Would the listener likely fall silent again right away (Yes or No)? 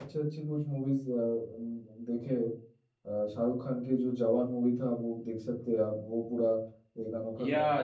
No